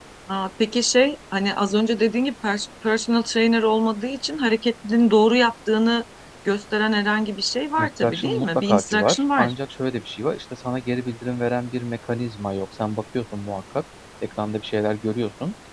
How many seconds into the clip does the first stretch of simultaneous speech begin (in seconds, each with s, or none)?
7.8 s